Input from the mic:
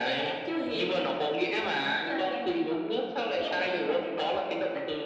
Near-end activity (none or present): none